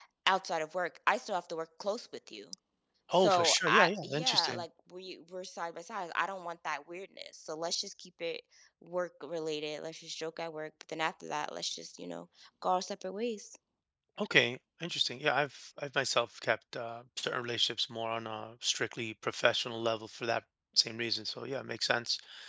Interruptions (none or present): present